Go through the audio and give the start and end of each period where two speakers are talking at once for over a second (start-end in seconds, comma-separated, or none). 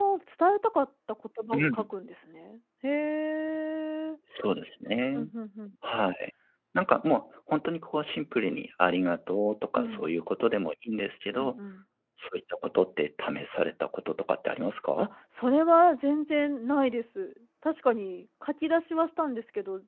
none